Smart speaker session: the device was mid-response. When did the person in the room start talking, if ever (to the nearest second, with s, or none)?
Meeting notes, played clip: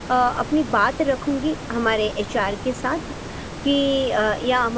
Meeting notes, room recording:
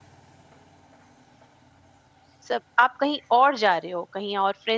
2 s